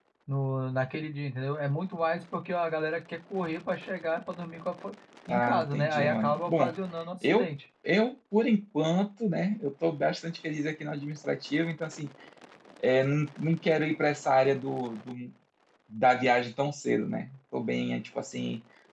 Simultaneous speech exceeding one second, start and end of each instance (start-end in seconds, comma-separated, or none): 5.3-6.7